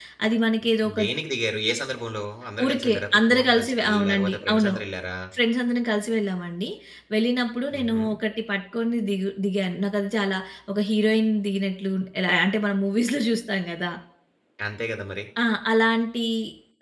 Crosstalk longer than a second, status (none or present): present